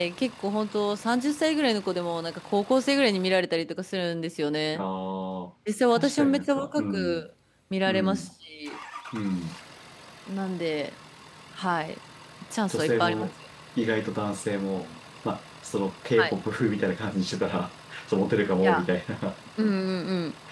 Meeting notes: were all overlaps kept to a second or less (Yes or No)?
No